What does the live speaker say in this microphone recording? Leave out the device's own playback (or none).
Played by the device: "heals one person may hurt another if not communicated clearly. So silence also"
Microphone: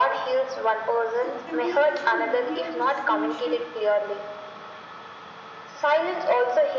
Is communication really always the solution?